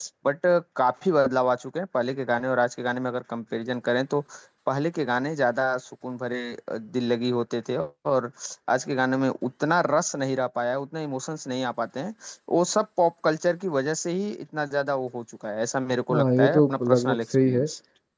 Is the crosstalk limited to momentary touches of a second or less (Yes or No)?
No